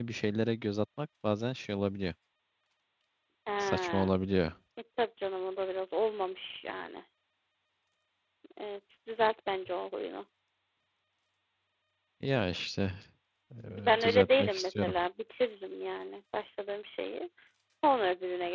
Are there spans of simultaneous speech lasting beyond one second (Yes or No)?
Yes